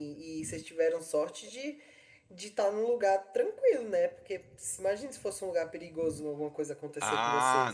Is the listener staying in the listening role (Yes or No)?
No